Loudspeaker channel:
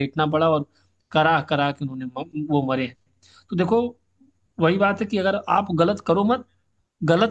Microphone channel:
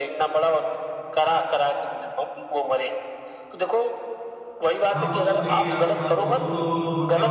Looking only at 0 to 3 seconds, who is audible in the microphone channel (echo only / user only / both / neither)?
echo only